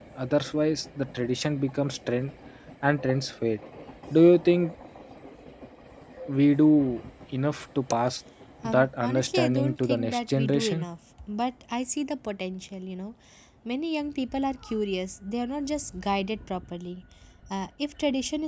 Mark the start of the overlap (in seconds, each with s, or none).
8.6 s